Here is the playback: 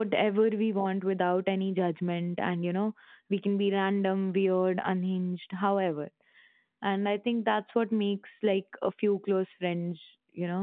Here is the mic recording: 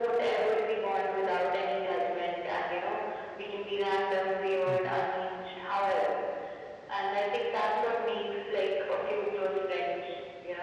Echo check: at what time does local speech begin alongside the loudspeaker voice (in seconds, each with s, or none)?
4.6 s